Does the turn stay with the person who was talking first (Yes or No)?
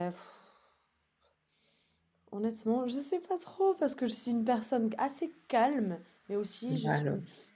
Yes